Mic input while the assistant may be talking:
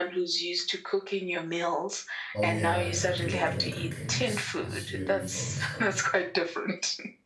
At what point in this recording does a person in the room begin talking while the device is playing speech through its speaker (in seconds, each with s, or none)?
2.3 s